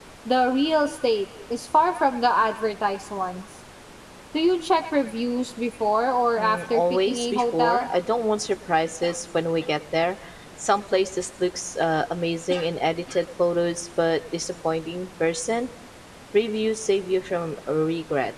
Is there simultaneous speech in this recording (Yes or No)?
Yes